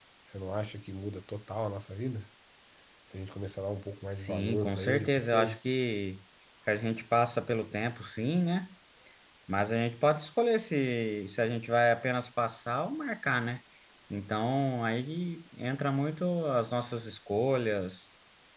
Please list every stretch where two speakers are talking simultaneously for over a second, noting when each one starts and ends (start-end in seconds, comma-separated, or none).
4.1-5.6